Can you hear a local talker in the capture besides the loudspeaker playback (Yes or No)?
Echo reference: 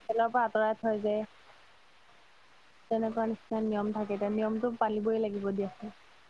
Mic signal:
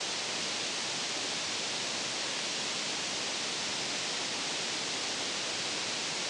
No